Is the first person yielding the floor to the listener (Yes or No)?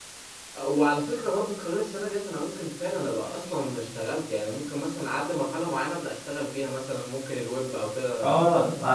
Yes